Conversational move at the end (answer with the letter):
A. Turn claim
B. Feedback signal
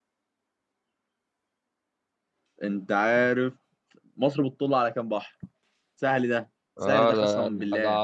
A